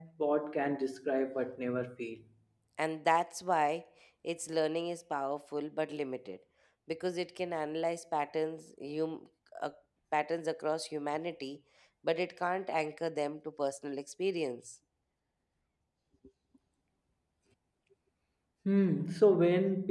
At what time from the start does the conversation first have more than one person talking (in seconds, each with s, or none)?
none